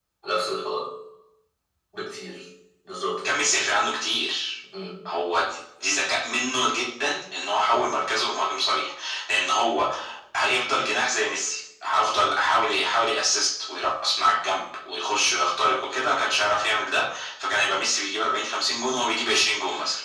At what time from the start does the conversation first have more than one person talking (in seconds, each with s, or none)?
none